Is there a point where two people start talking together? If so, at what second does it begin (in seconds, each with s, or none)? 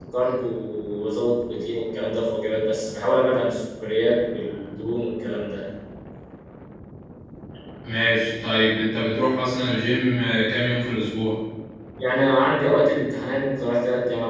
none